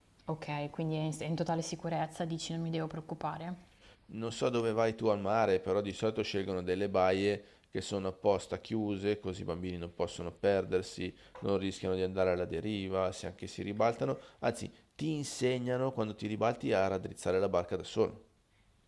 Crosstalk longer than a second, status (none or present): none